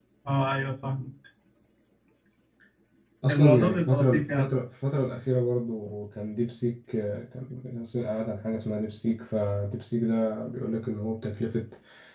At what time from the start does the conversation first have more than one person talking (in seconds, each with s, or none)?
3.3 s